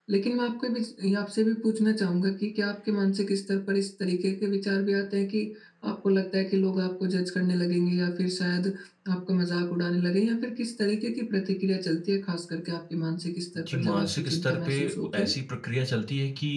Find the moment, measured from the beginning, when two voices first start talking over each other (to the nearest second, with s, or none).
14 s